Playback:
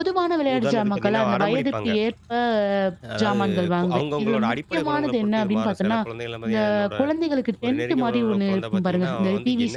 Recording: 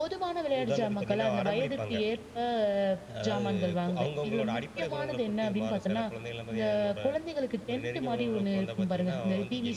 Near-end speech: none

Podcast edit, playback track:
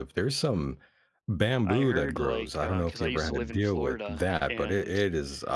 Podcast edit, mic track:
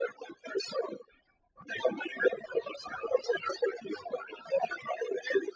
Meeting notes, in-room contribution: none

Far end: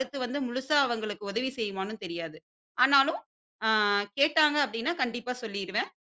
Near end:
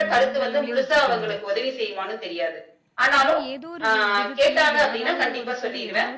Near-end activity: present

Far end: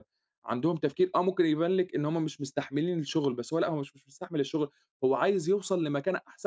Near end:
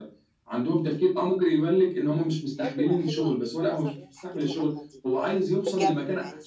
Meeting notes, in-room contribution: present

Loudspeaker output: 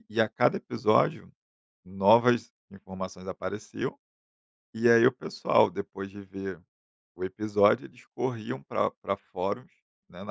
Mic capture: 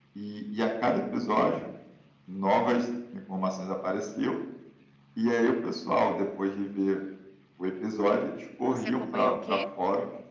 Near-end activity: present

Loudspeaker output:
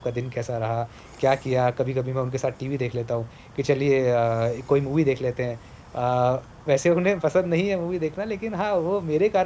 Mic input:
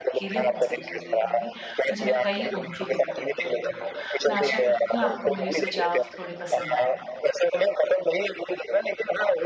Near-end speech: present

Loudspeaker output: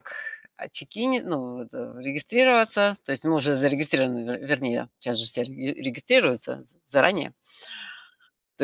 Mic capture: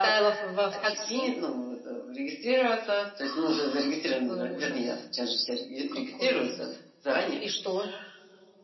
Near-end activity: present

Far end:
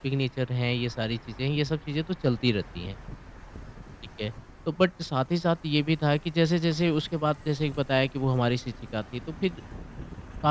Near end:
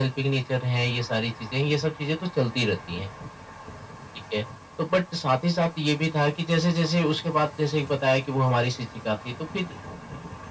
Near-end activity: none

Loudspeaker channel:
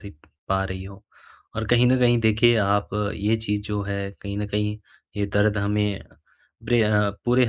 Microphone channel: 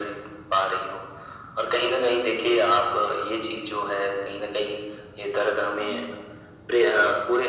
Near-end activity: present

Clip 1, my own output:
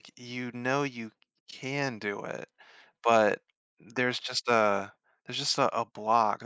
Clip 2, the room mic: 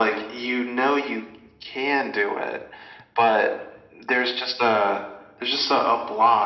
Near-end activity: none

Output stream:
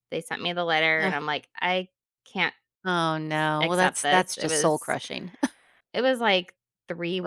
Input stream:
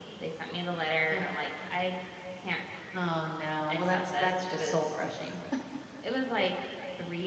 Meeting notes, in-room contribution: none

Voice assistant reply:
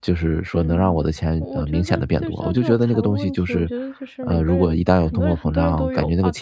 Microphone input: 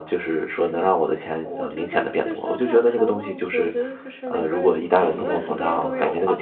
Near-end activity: present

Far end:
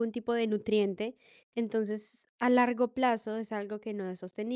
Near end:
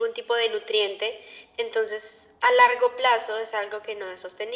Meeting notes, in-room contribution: none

